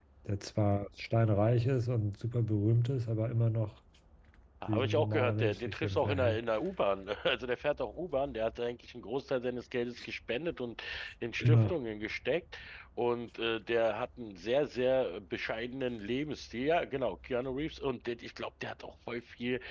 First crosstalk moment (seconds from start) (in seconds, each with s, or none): 4.7 s